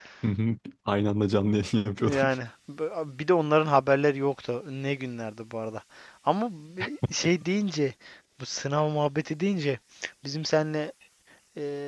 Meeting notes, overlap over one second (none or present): none